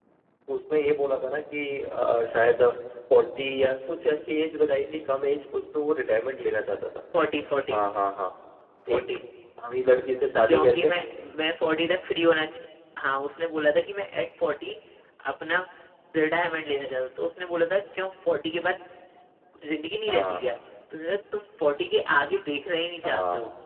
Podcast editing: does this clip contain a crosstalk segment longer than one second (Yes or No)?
No